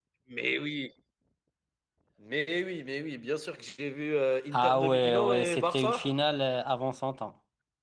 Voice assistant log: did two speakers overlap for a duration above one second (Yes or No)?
Yes